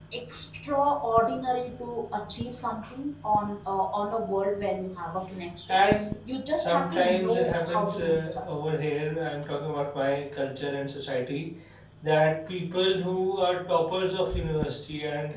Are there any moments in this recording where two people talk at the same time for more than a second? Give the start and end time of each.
6.5-8.5

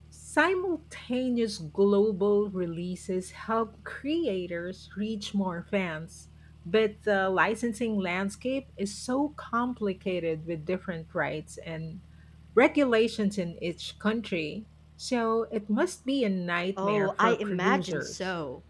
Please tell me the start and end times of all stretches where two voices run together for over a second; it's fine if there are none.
16.8-18.1

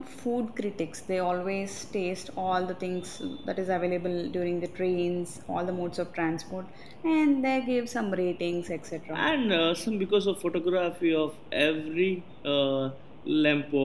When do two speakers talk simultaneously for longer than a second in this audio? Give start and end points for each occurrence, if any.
none

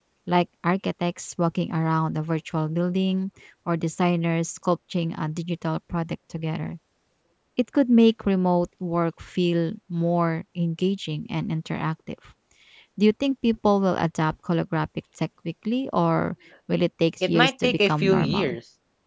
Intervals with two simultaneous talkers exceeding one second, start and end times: 17.2-18.6

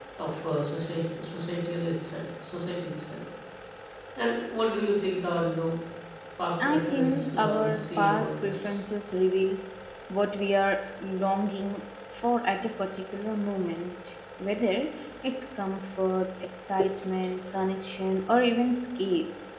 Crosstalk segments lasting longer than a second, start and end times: 6.6-8.8

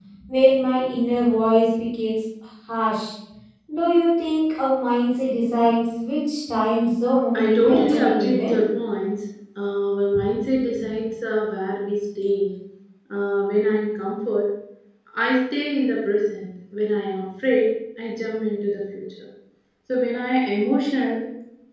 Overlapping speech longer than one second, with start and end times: 7.3-8.6

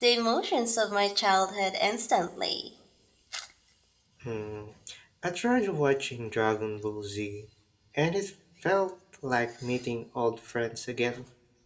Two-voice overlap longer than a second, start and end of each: none

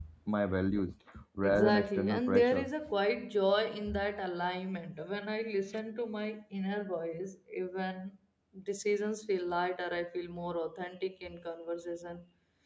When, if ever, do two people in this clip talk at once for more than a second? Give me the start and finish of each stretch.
1.4-2.7

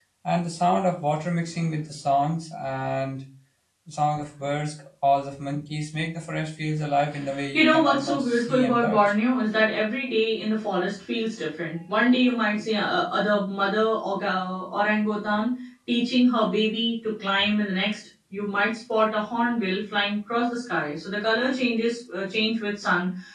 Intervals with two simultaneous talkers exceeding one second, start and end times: 7.5-9.0

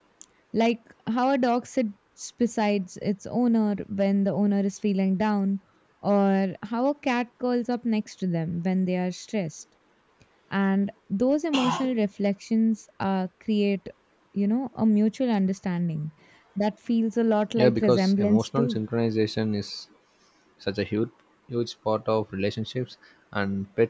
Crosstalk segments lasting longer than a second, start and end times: 17.6-18.8

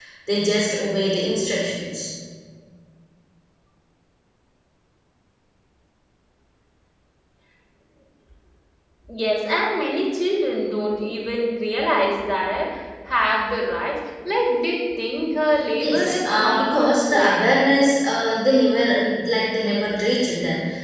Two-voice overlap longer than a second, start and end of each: 15.8-17.4

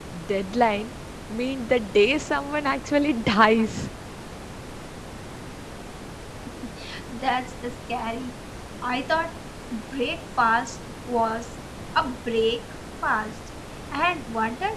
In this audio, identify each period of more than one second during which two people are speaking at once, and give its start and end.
none

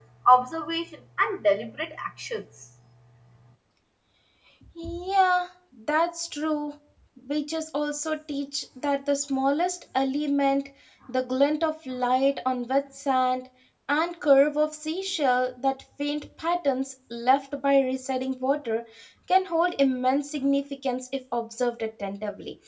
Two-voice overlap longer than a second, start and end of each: none

